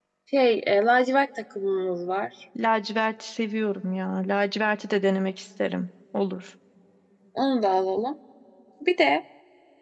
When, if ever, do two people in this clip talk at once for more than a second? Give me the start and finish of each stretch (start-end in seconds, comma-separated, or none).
none